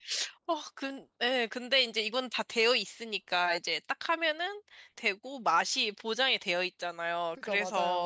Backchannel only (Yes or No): Yes